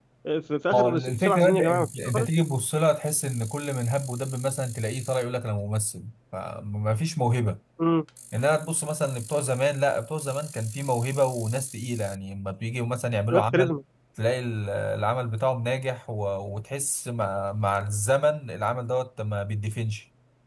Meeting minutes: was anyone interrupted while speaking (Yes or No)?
Yes